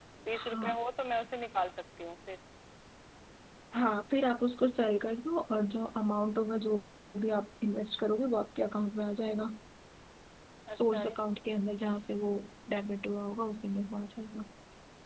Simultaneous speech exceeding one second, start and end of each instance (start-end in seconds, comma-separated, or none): none